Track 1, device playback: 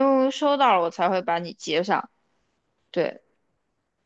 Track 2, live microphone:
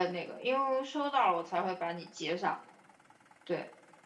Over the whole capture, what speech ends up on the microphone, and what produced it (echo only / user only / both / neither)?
echo only